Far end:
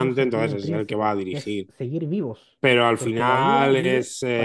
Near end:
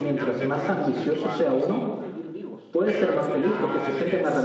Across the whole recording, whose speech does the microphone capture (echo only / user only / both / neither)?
both